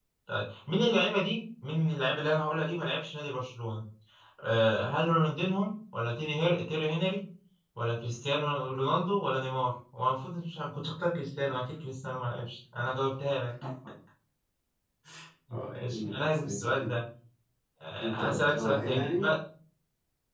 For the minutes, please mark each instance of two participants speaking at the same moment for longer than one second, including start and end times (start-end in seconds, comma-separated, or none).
15.7-16.9, 18.0-19.3